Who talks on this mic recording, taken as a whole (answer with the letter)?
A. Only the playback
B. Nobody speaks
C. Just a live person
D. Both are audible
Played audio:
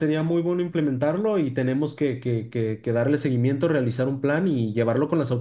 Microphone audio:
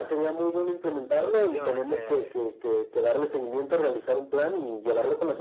D